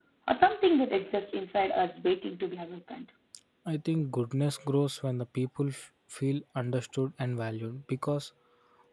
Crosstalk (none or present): none